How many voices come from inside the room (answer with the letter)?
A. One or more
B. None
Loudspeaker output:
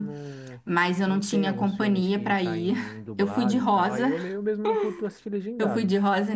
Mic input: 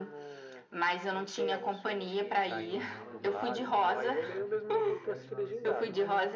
A